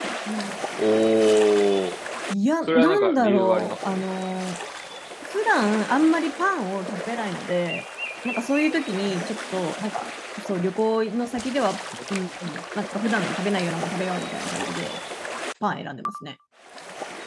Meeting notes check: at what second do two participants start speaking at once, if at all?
3 s

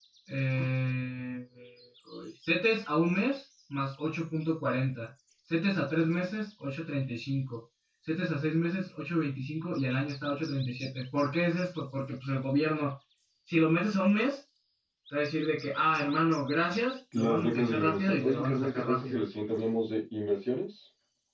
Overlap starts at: 17 s

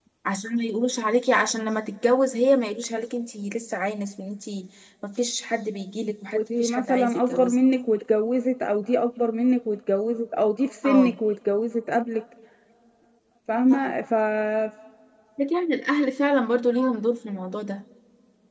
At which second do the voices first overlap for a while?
6 s

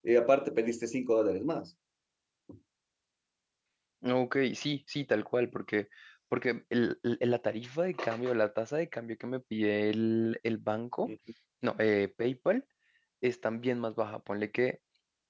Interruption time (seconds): none

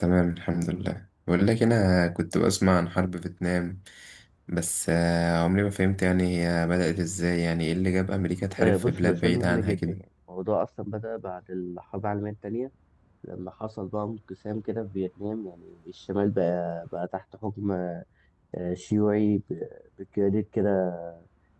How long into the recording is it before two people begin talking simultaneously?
9 s

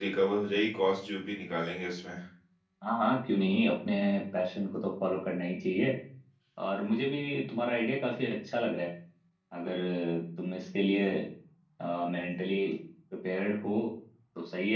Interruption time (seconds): none

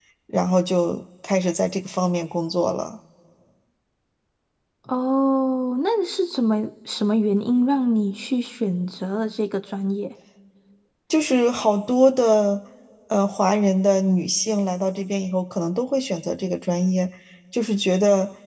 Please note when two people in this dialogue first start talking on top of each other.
none

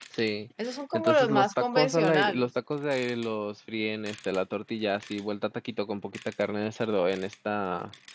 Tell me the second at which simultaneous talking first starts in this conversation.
1 s

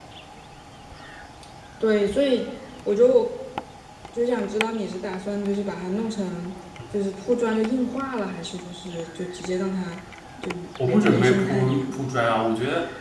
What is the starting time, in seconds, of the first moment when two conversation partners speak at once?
11 s

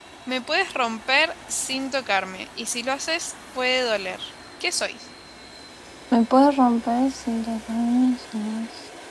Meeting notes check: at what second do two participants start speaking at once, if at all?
none

